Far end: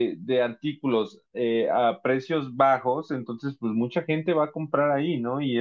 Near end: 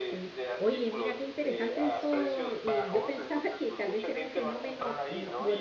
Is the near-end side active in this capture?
Yes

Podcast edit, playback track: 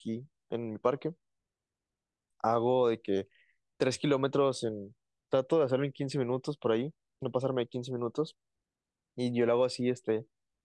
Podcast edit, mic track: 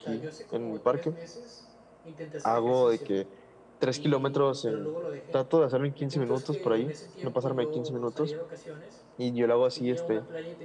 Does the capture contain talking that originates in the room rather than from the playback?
Yes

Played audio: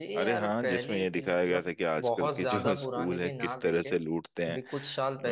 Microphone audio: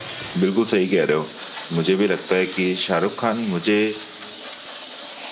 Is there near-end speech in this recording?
Yes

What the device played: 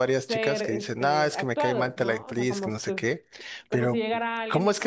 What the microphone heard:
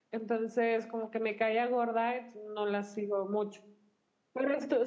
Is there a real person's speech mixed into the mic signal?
Yes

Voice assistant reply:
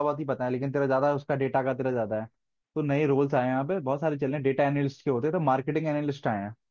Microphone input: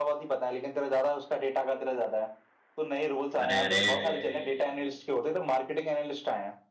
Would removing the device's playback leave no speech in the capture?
No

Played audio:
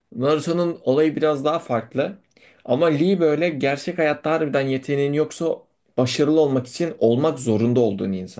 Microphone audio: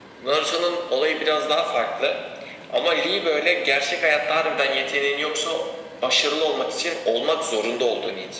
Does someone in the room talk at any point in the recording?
No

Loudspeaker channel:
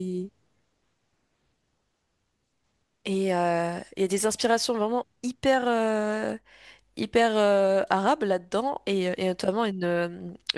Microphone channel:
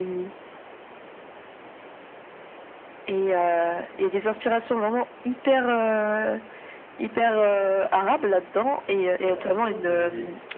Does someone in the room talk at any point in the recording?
Yes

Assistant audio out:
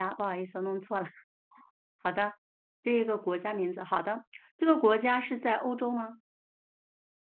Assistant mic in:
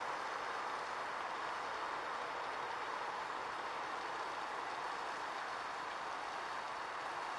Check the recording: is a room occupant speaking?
No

